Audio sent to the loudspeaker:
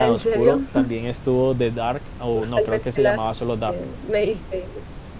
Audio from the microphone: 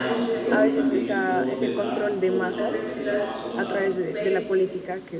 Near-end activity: present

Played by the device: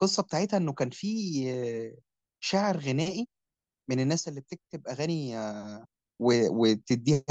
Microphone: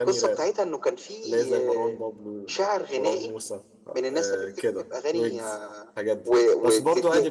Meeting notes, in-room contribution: present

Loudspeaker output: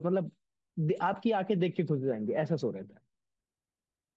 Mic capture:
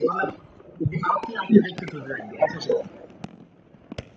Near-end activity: none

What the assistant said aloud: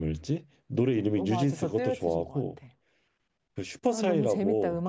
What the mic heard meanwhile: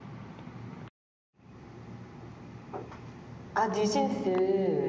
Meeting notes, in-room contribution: present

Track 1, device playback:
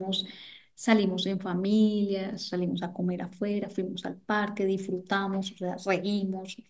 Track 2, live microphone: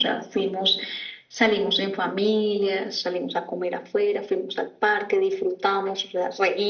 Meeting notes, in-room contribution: none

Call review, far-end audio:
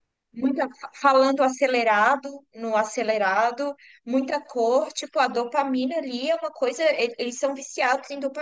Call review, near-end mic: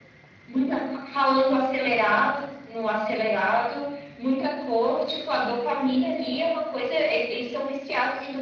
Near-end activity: none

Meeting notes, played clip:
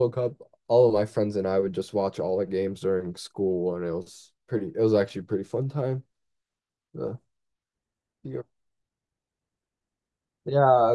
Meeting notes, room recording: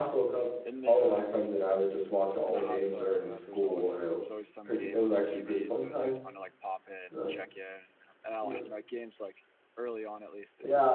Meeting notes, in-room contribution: present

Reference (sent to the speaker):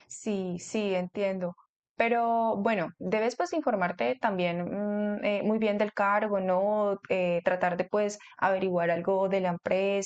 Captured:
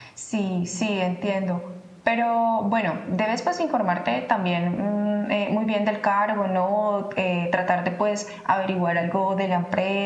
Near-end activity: none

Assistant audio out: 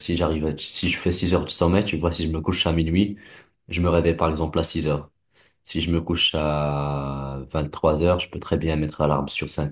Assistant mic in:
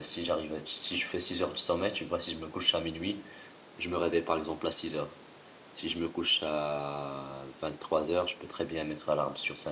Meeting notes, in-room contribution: none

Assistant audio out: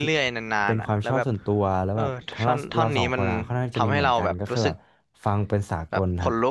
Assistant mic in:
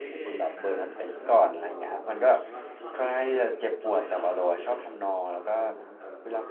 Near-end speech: present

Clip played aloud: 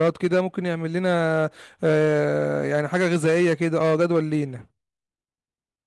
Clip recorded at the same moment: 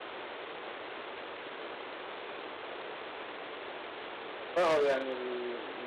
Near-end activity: present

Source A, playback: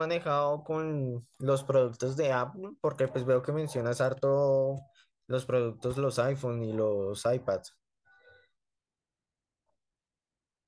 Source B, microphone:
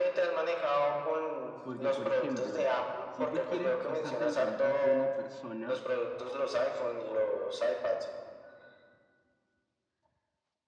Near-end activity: present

